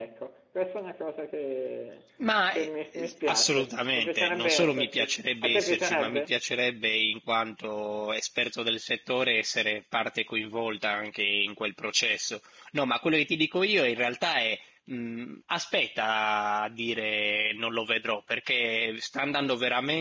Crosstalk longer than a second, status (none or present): present